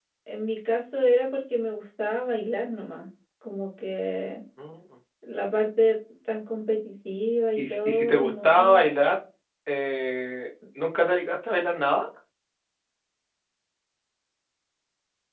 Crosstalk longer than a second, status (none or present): present